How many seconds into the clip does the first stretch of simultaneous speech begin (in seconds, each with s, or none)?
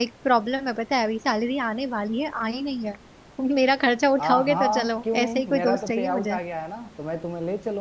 4.2 s